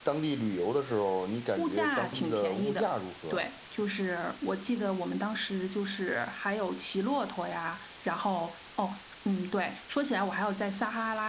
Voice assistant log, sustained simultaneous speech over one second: present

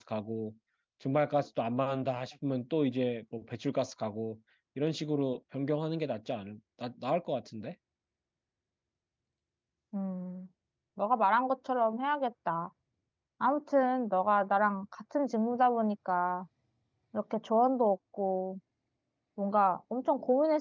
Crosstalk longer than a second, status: none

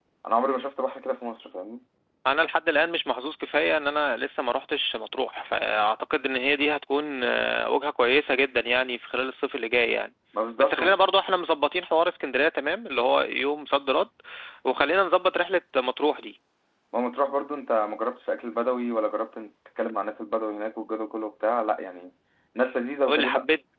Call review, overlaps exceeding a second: none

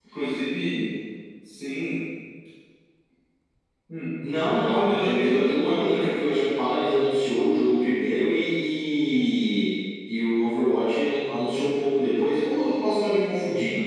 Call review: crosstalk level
present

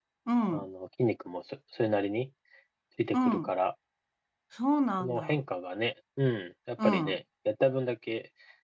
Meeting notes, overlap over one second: none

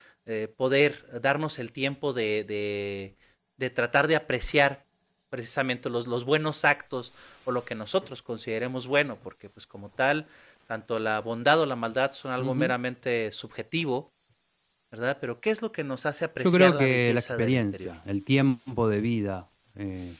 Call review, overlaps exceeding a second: present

